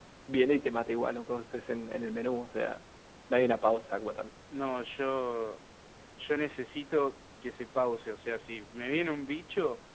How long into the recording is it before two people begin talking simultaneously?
none

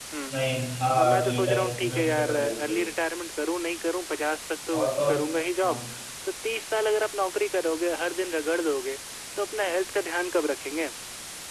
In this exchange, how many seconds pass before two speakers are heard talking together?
1.0 s

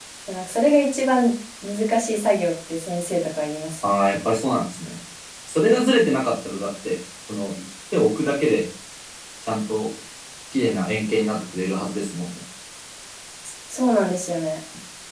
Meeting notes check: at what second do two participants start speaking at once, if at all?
none

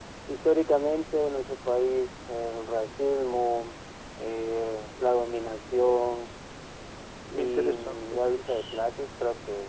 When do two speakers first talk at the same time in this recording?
7.4 s

